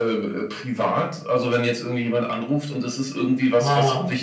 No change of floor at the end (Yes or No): Yes